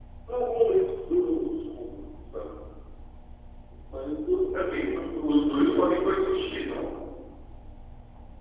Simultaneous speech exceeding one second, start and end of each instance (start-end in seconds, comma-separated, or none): 4.5-6.7